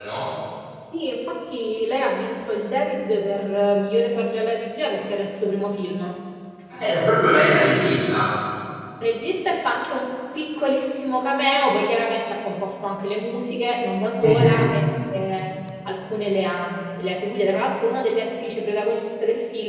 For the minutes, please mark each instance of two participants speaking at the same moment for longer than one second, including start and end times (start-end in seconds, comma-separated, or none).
none